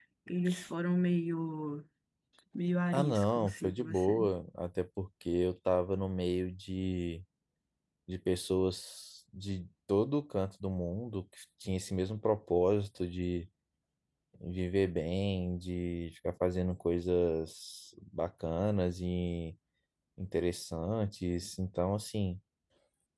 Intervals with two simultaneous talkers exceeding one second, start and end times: 2.9-4.2

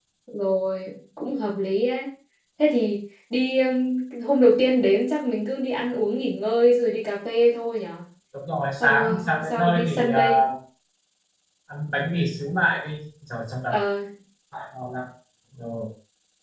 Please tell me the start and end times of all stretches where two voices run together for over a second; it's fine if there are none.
8.8-10.4

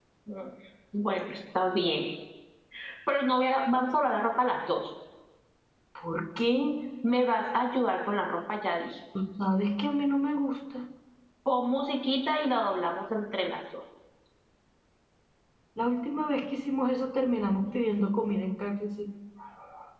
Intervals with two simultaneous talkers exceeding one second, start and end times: none

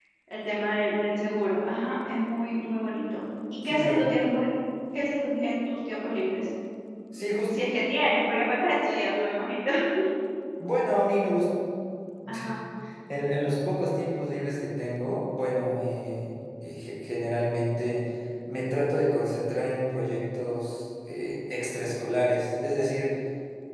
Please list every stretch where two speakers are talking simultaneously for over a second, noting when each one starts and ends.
none

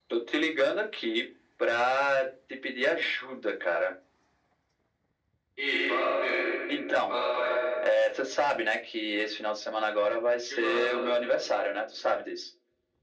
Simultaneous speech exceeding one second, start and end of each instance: none

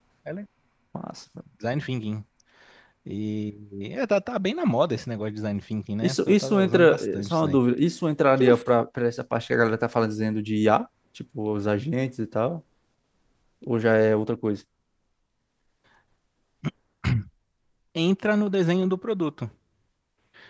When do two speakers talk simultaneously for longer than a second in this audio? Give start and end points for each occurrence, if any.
6.0-7.6

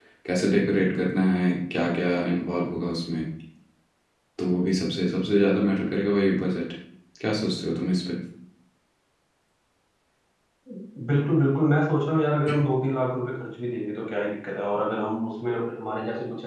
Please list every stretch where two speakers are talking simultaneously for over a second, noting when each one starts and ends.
none

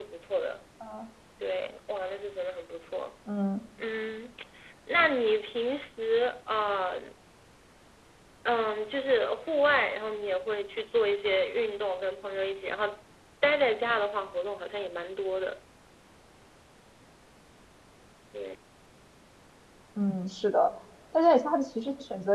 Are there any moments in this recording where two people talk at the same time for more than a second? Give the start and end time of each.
none

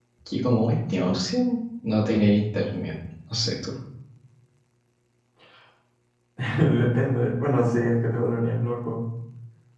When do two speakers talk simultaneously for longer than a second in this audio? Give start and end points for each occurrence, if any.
none

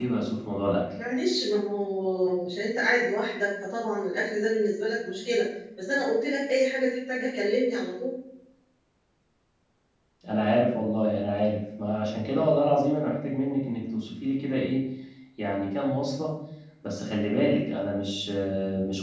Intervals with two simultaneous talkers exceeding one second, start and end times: none

